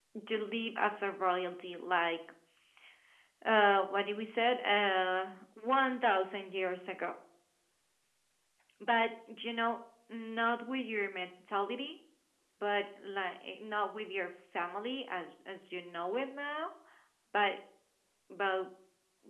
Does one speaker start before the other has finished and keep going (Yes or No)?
No